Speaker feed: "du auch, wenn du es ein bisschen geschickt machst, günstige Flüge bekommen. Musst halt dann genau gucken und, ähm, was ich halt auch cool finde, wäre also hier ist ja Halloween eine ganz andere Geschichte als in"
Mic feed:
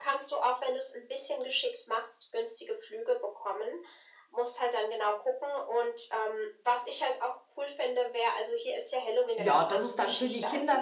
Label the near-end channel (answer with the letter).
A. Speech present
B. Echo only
A